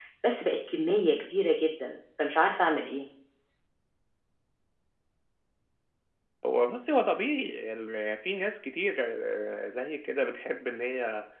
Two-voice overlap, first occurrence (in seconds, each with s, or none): none